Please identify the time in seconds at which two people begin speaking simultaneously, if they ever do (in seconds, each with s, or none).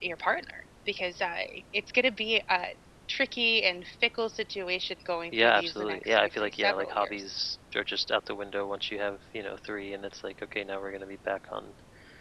5.3 s